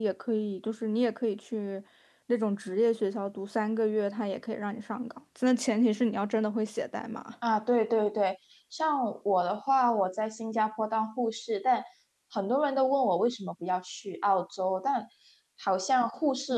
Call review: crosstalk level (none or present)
none